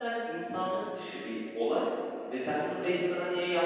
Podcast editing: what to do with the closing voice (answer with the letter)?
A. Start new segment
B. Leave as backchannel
B